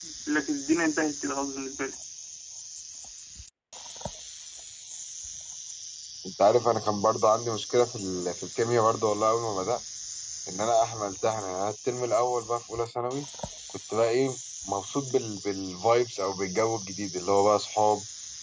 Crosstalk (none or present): none